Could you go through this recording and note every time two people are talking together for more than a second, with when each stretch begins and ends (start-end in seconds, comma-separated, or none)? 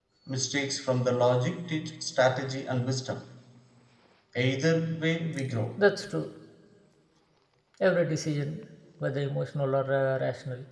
none